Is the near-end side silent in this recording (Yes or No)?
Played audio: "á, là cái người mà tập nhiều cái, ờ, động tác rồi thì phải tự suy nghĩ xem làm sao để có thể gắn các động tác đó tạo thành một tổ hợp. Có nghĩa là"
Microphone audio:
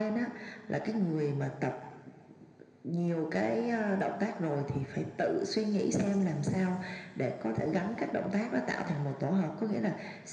Yes